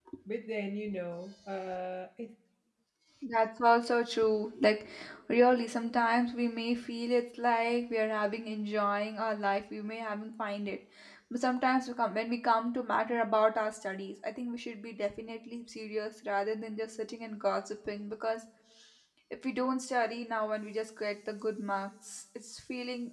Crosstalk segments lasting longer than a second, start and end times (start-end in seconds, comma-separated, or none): none